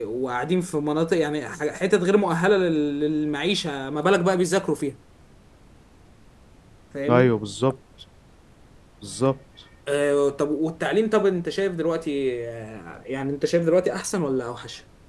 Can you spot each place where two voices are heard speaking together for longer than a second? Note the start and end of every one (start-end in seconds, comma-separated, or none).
none